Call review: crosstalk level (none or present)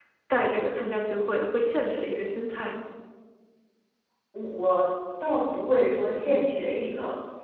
none